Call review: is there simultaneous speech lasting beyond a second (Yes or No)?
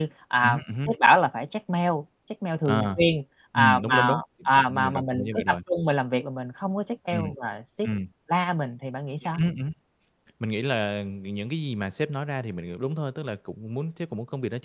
Yes